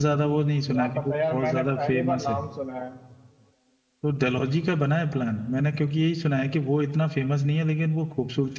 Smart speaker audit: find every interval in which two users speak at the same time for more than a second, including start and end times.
0.7-2.4

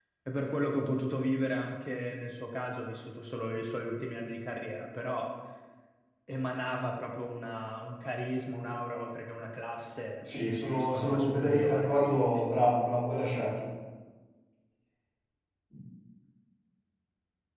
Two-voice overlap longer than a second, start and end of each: 10.8-12.4

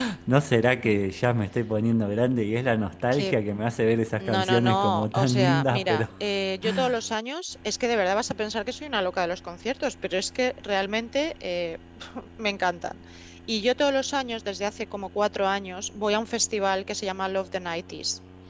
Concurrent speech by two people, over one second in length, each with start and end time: 4.2-6.0

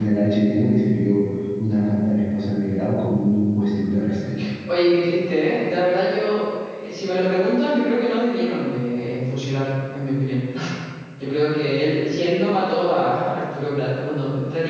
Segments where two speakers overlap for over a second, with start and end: none

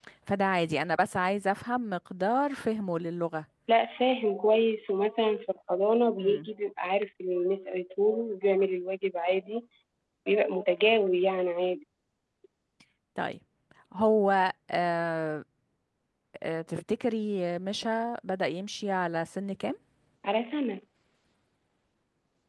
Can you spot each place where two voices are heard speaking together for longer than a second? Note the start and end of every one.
none

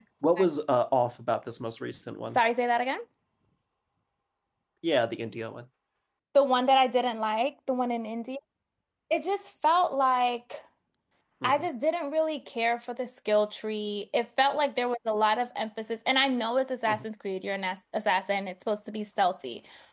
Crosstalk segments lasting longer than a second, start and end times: none

